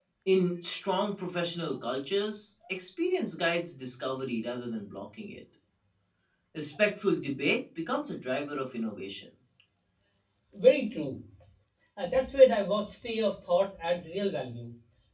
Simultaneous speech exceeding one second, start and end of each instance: none

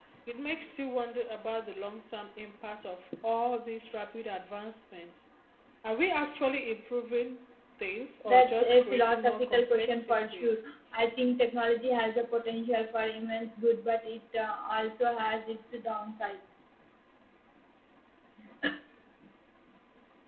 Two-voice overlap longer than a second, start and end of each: 8.3-10.4

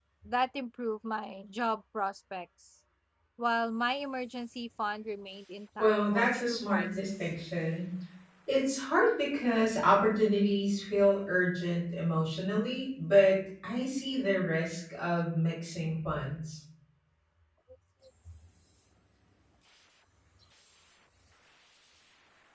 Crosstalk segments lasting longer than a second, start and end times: 5.8-7.1

